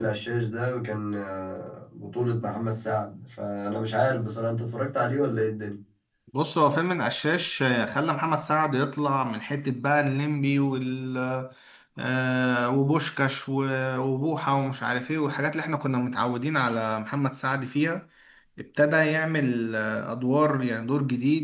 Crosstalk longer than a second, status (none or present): none